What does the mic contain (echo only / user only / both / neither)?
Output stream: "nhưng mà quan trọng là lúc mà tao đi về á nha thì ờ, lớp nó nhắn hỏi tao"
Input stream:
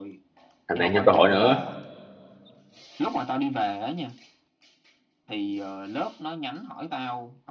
both